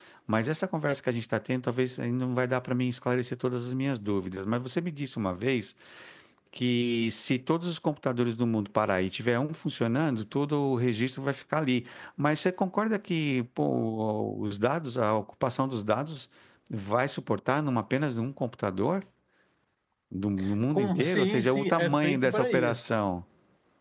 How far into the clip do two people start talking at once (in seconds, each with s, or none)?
20.7 s